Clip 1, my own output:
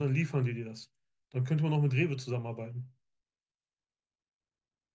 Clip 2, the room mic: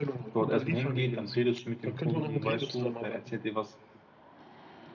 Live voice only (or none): dort erstmal hingeht, dann redest du mit dem Kunden, weißt du, er erzählt dir, was,